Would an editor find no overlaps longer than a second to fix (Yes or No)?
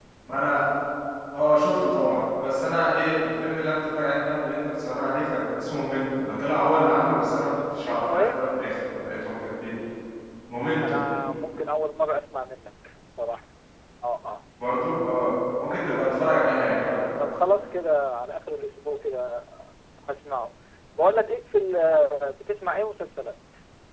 Yes